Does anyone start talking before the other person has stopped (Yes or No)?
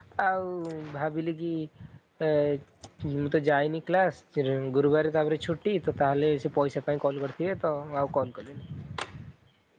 No